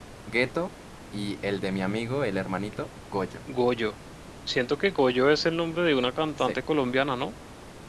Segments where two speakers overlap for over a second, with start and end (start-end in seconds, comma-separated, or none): none